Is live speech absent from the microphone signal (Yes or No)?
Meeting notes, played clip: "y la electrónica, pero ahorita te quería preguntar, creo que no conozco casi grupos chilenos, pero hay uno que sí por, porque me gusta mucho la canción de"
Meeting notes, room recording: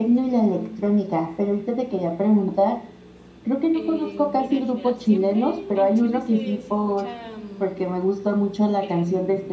No